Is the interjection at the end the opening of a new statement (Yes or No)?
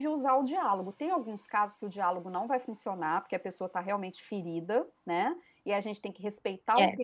No